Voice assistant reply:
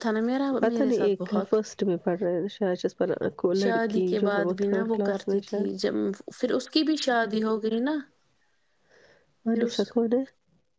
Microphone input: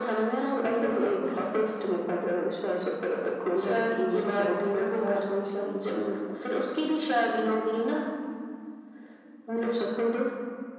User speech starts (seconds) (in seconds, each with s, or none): none